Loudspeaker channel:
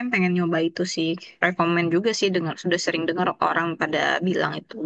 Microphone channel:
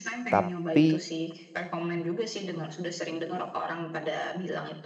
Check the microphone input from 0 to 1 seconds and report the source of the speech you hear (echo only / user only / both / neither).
both